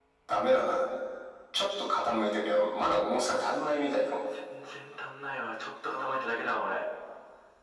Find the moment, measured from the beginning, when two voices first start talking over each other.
none

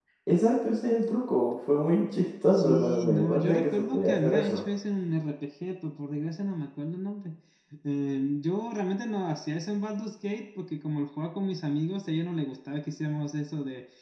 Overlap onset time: 2.5 s

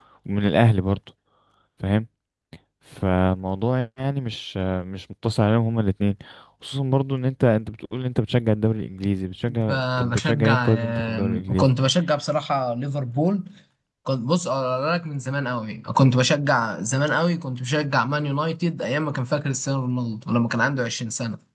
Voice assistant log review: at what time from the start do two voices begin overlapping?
9.5 s

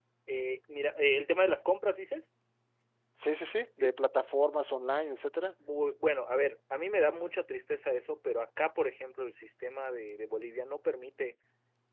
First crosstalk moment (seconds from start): none

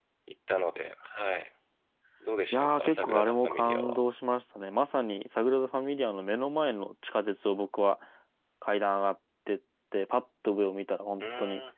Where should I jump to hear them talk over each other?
2.5 s

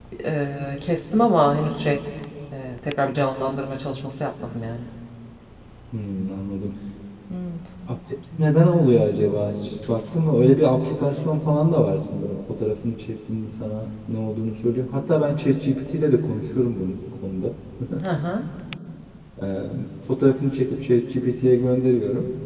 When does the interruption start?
none

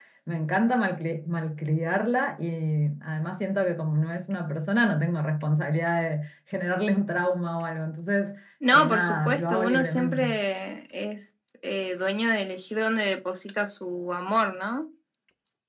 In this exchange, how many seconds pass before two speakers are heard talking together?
8.6 s

